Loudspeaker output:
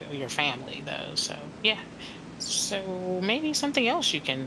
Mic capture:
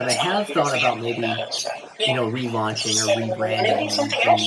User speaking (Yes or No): Yes